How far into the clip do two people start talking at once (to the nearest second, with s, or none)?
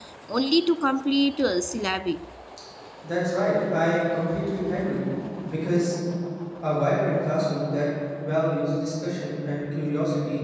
none